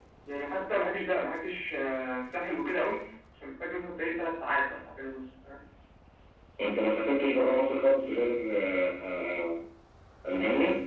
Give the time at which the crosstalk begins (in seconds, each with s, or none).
none